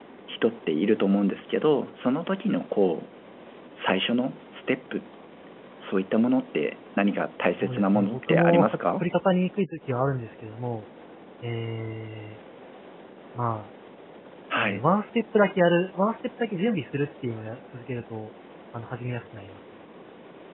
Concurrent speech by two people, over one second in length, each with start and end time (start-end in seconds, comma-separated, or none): 7.6-9.1